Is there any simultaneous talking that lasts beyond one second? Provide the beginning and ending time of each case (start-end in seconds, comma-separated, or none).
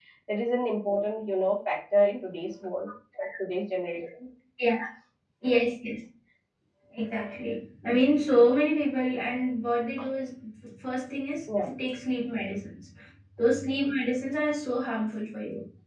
none